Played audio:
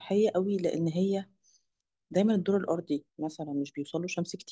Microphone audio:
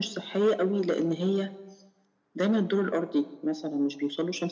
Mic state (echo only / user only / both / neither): echo only